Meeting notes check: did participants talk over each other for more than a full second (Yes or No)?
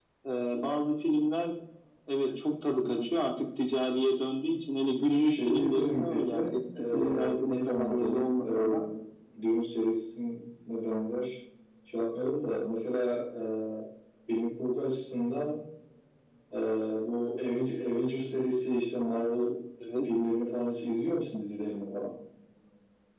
Yes